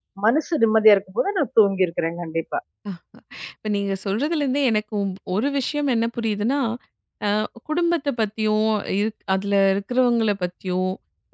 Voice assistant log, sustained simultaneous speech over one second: none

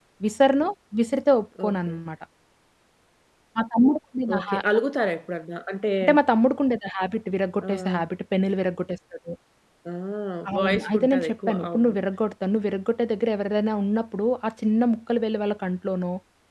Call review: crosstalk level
present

